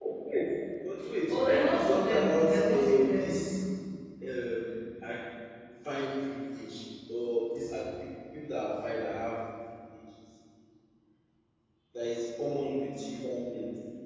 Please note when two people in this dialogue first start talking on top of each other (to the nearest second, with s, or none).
1 s